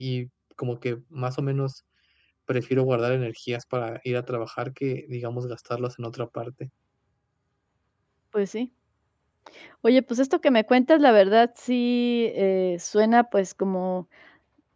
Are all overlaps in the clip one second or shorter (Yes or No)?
Yes